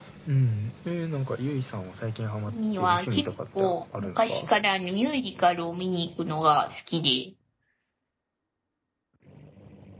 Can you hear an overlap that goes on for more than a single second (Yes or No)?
Yes